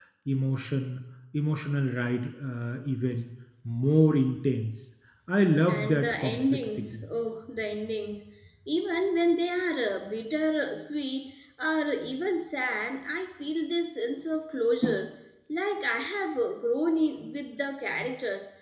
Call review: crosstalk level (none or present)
present